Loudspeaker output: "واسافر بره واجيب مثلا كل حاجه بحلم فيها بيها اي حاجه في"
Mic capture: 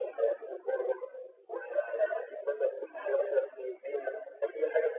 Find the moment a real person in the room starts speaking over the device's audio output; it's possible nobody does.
none

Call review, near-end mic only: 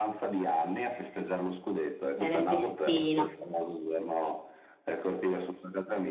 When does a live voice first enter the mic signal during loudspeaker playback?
2.1 s

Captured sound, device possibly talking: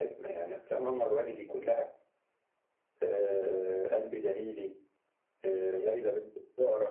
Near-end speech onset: none

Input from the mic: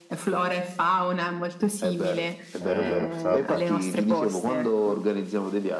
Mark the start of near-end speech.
2.6 s

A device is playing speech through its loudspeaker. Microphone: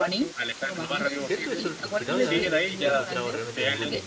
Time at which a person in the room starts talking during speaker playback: 1.1 s

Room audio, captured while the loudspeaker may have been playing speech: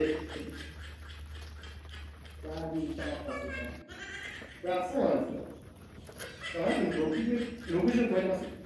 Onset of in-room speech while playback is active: none

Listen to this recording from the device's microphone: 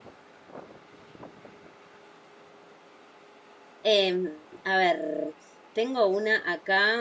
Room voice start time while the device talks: 3.9 s

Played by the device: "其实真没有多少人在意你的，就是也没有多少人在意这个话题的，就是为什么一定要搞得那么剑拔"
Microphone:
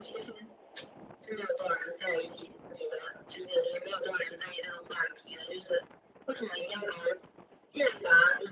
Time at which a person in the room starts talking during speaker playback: none

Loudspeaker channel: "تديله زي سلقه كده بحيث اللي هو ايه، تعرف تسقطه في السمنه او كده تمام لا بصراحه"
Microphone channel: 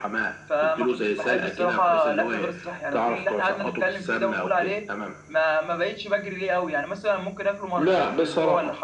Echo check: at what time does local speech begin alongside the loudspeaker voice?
0.5 s

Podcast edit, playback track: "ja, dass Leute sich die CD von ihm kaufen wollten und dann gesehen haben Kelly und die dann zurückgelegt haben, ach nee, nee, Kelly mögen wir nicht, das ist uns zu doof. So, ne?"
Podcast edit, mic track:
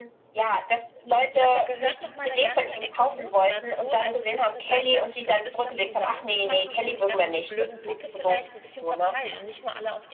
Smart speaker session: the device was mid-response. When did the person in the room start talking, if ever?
1.3 s

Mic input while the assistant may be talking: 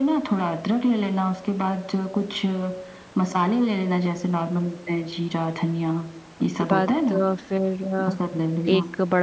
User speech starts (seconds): 6.4 s

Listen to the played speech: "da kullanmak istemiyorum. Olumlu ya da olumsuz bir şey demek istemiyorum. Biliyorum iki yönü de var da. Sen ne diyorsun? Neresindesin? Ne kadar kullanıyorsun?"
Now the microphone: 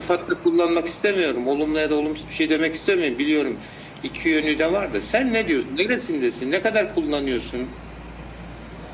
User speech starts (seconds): none

